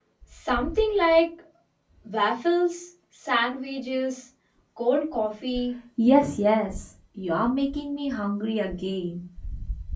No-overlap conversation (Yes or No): Yes